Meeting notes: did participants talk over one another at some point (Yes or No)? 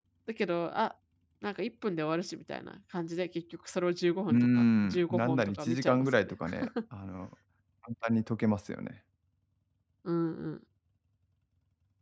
Yes